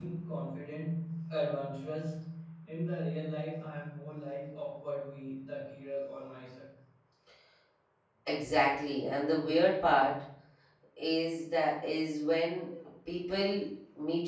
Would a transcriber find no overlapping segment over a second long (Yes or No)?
Yes